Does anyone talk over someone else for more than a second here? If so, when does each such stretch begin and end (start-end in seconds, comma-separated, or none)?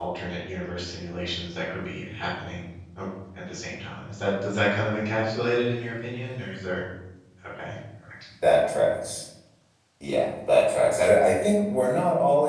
none